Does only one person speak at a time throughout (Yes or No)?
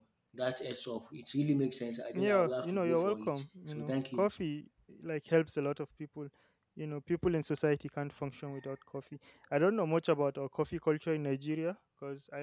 No